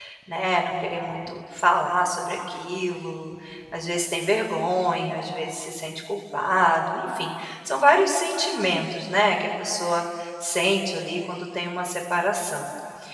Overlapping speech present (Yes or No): No